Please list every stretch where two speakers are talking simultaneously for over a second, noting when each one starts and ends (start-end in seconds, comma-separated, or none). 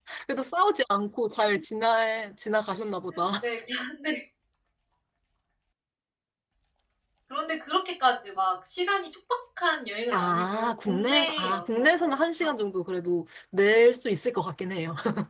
10.1-12.5